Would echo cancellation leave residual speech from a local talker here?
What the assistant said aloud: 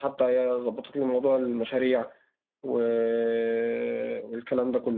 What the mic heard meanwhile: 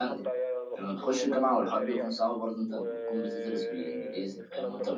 Yes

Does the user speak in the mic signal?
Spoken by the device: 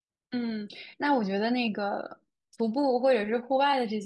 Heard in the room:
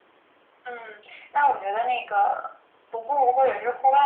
No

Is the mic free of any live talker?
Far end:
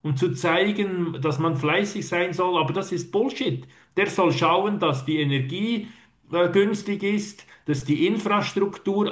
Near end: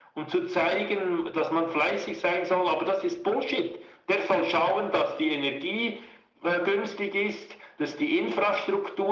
Yes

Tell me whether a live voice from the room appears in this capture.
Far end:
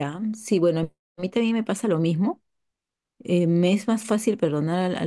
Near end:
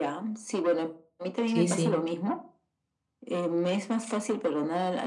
Yes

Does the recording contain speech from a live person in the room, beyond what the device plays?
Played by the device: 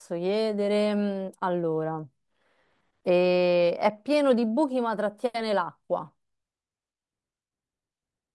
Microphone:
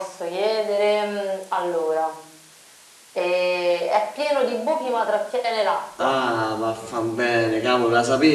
Yes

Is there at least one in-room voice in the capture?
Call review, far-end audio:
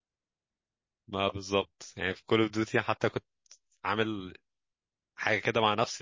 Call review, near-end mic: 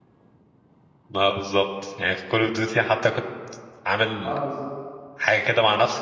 Yes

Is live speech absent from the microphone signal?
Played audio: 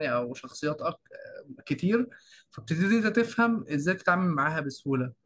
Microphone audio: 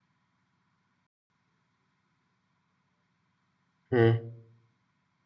No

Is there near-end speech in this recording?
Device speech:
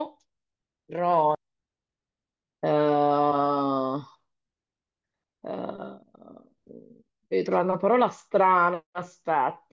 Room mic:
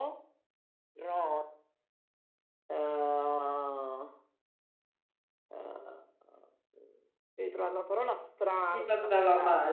Yes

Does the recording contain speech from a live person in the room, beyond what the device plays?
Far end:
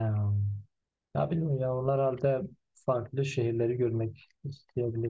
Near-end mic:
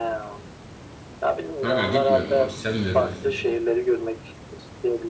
Yes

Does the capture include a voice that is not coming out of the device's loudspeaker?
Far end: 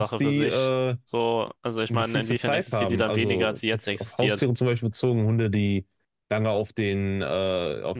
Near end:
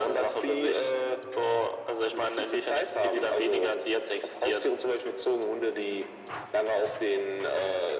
No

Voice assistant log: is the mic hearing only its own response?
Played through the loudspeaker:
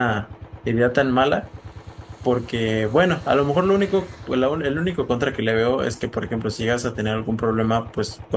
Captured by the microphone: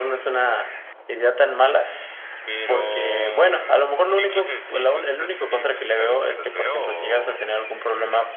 No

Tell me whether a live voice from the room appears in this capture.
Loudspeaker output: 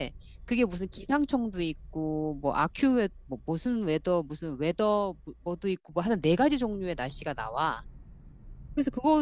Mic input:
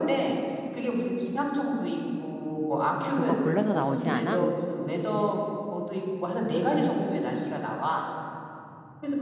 Yes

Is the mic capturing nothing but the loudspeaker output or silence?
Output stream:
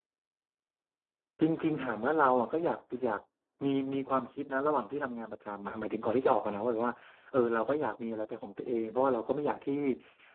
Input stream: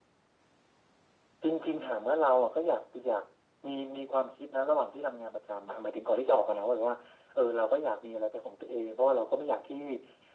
Yes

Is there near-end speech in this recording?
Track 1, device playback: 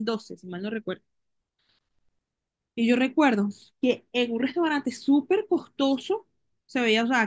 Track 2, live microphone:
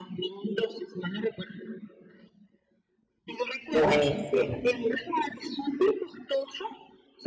Yes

